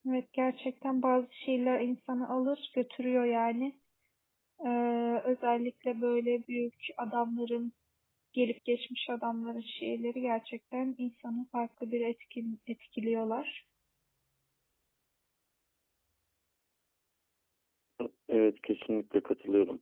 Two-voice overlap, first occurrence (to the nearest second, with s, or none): none